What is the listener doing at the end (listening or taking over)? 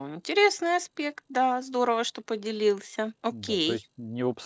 taking over